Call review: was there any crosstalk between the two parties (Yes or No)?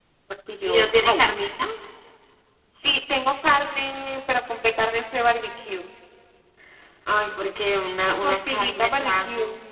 Yes